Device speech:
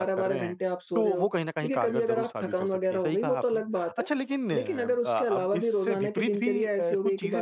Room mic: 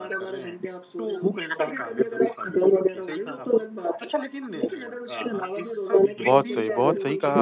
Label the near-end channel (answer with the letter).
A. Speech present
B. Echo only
A